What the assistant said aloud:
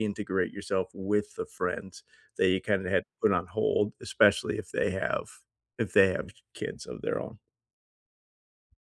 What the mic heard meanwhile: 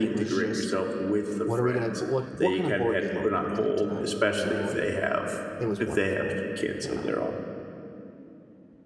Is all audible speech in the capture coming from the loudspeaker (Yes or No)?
No